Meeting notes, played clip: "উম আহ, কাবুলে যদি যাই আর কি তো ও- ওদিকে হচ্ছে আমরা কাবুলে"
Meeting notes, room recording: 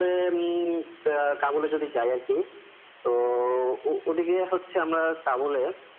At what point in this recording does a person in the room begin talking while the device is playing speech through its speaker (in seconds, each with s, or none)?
none